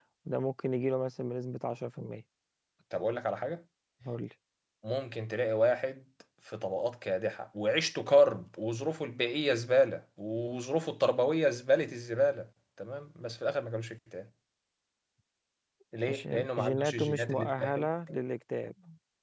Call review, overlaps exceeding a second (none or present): present